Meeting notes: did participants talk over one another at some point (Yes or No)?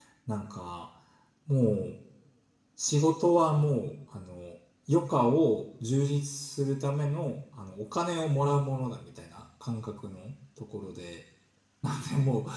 No